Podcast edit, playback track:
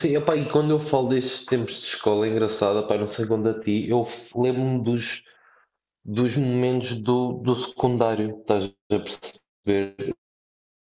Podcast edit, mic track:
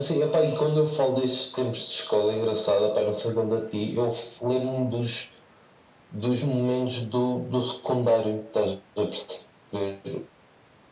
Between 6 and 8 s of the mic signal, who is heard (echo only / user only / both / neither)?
echo only